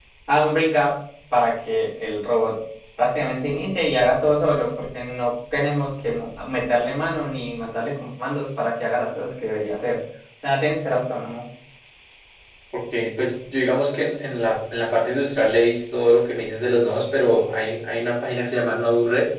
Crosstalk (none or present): none